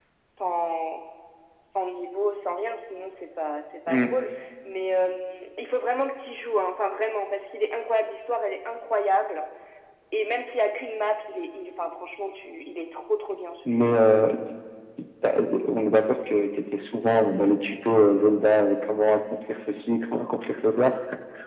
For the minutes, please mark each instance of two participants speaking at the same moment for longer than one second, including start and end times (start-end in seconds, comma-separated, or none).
none